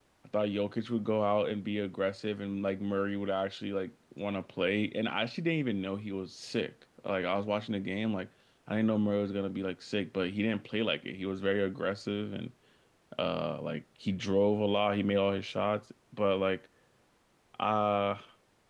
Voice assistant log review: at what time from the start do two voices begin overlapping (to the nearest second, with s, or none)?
none